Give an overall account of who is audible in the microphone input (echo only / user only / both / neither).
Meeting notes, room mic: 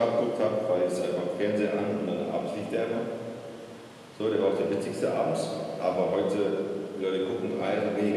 echo only